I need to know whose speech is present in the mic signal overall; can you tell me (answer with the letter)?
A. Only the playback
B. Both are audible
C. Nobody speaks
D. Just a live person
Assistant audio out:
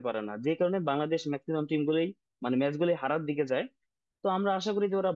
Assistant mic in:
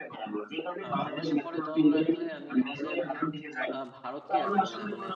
B